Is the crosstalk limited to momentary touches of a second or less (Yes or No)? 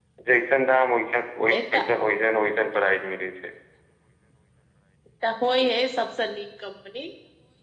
Yes